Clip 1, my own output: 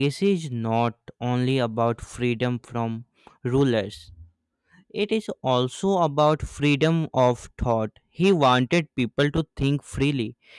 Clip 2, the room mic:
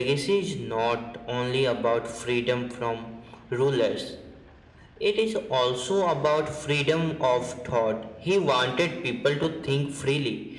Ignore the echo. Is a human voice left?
No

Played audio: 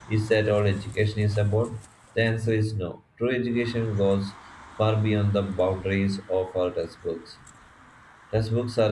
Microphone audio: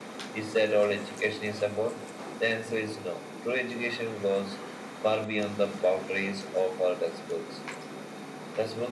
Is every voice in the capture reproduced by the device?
Yes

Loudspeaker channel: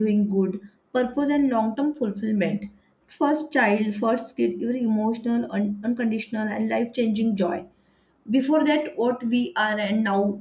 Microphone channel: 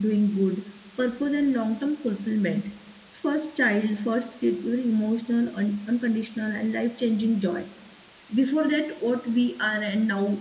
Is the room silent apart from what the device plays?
Yes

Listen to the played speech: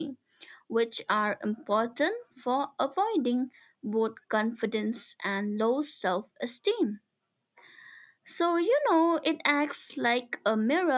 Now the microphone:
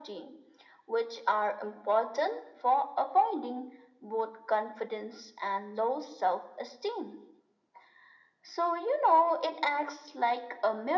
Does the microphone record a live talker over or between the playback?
No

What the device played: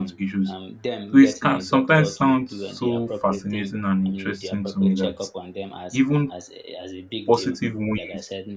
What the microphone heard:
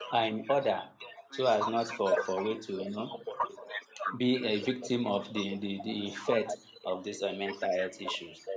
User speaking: Yes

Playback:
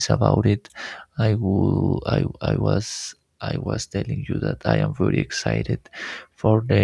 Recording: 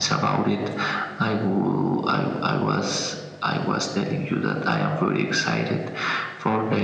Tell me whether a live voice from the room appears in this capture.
No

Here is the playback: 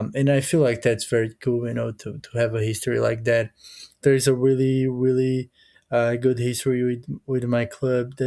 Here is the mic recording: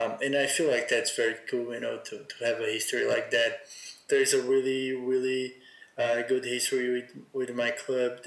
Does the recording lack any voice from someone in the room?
Yes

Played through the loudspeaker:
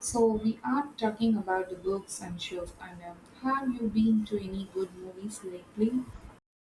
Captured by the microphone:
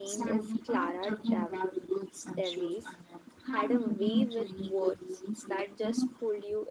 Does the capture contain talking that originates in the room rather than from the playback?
Yes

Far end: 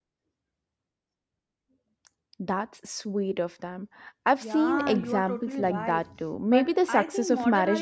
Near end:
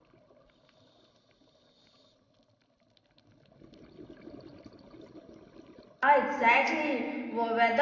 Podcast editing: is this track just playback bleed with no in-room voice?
No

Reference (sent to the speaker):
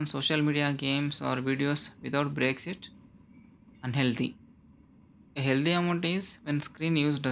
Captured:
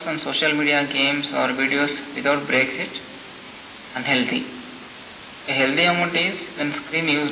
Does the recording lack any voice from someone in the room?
Yes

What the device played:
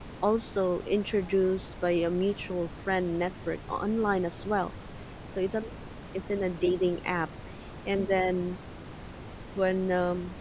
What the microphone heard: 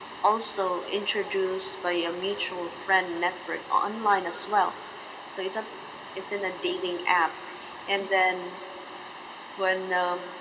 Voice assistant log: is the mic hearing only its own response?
Yes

